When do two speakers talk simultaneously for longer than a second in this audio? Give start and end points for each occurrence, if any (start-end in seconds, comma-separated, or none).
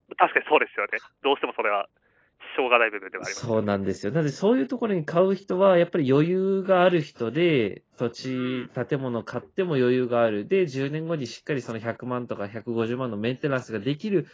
none